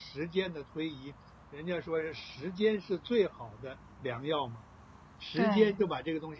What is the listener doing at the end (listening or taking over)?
listening